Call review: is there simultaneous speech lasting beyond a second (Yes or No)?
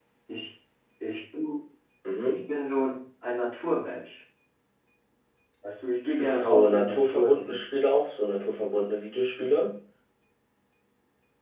Yes